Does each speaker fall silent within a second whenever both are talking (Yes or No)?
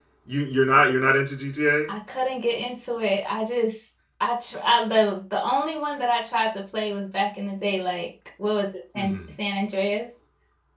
Yes